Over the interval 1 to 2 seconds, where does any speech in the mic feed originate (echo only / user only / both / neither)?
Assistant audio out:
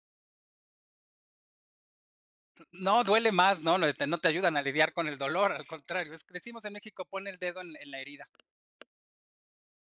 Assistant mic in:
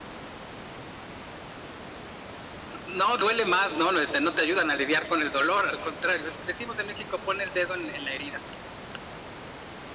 neither